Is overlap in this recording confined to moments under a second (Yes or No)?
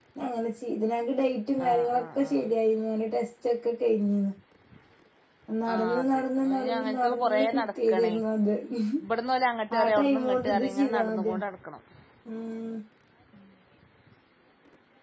No